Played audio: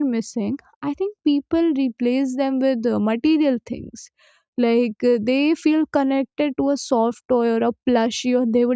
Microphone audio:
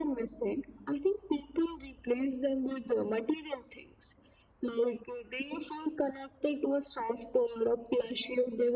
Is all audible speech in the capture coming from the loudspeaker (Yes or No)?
Yes